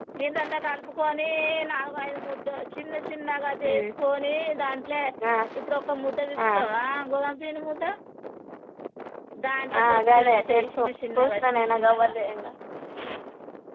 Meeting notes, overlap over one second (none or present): present